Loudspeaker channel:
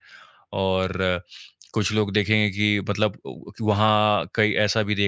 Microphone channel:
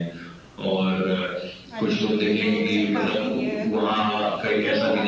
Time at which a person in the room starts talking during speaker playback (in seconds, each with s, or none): 1.7 s